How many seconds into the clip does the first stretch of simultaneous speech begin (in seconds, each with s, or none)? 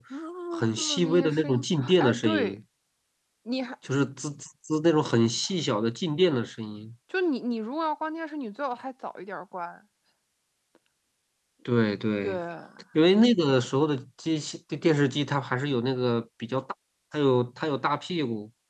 0.5 s